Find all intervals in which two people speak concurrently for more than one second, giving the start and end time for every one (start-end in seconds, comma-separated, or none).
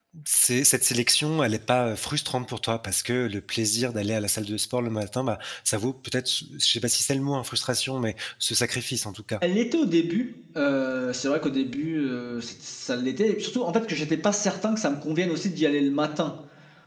none